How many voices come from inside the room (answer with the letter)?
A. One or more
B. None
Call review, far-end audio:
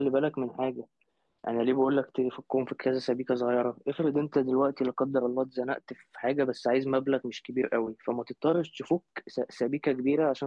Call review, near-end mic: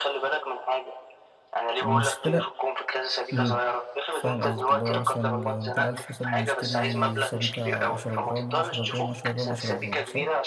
A